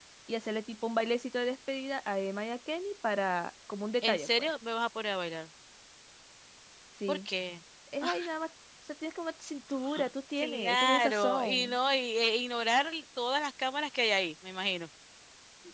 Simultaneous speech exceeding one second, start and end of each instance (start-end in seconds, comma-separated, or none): 10.4-11.8